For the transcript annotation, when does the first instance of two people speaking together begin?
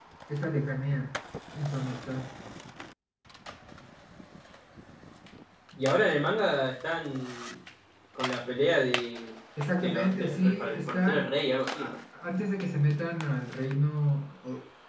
10 s

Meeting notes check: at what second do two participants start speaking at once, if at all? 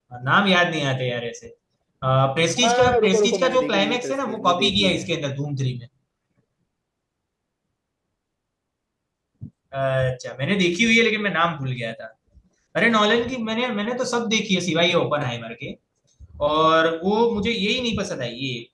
3 s

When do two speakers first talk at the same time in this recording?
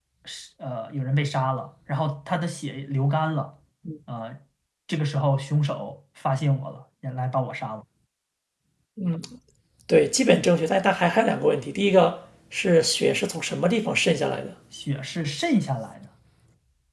none

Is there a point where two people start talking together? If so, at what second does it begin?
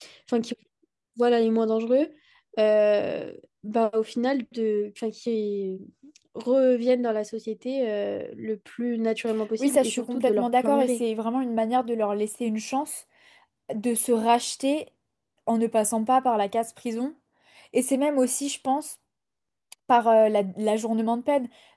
10 s

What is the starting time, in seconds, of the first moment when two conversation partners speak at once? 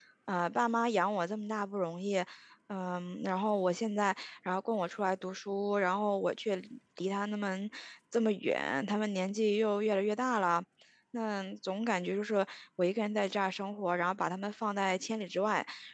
none

